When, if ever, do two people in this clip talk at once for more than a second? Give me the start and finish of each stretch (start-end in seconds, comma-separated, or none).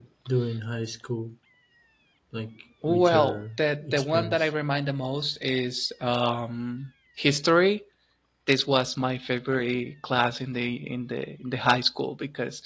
2.9-4.5